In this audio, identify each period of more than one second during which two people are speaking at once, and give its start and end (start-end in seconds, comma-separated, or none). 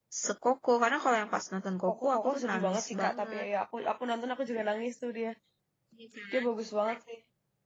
1.9-3.4